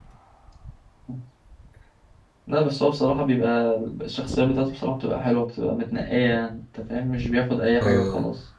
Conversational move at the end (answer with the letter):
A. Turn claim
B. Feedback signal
A